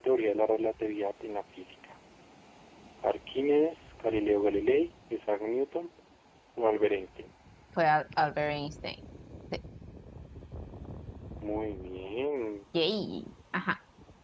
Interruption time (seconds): none

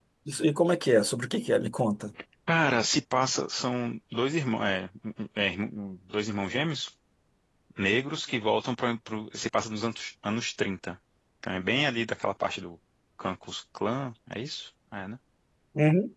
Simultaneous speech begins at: none

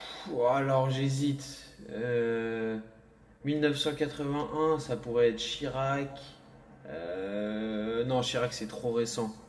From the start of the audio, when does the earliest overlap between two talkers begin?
none

